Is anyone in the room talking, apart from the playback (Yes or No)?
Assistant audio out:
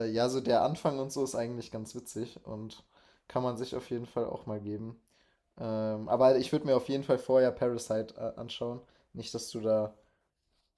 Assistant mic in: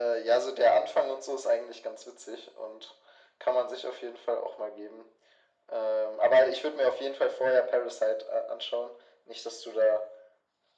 No